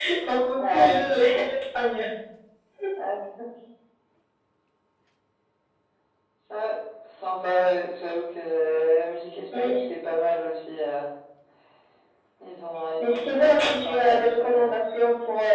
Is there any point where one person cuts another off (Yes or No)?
Yes